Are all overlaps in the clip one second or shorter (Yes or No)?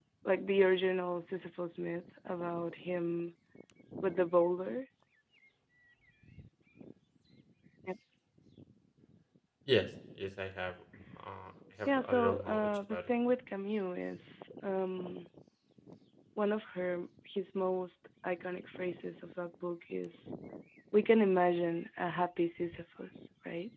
No